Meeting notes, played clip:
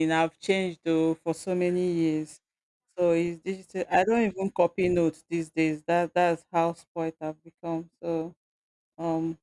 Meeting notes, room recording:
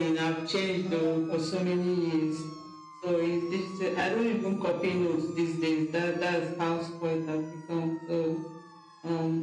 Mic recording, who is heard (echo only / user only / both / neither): both